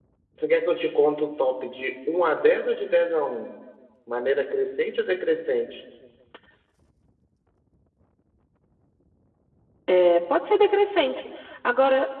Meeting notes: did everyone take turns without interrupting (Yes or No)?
Yes